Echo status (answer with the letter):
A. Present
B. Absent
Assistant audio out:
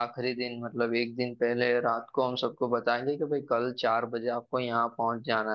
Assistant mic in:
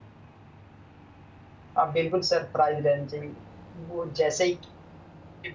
B